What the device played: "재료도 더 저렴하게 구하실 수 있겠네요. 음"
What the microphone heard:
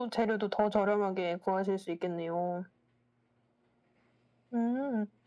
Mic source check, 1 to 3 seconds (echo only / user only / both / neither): echo only